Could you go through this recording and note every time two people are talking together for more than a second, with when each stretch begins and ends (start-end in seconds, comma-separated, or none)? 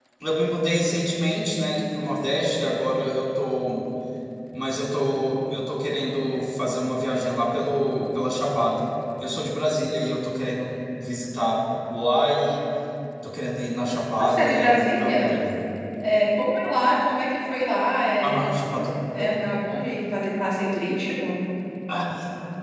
14.2-15.4